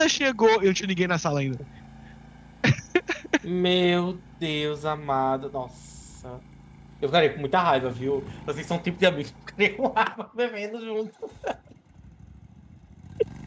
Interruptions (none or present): none